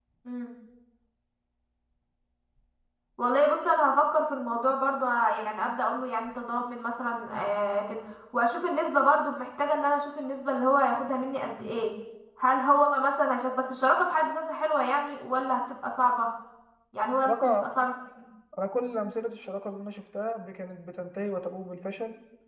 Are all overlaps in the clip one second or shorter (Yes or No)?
Yes